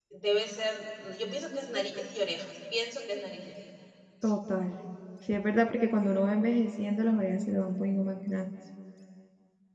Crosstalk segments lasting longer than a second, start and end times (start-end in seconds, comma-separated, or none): none